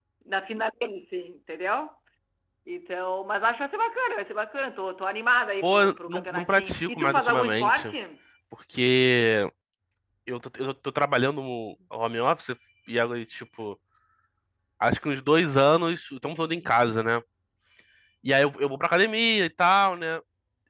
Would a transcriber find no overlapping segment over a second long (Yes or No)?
No